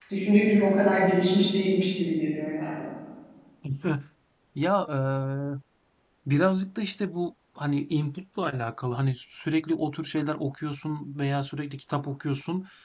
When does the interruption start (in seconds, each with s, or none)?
none